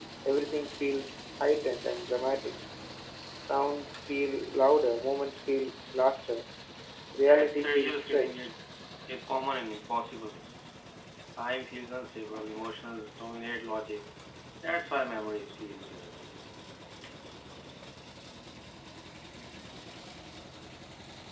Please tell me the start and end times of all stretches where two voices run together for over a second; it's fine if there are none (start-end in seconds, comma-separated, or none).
7.2-8.5